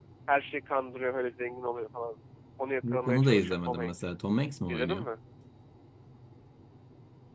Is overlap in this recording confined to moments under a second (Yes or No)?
No